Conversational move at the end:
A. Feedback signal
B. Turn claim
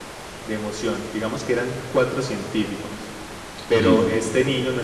A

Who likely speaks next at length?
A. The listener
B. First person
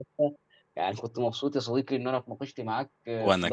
B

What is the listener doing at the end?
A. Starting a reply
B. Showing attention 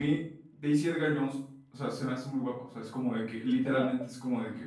B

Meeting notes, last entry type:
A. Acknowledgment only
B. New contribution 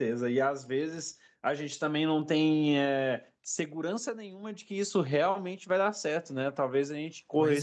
A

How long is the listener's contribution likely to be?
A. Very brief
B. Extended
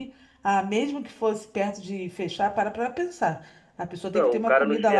B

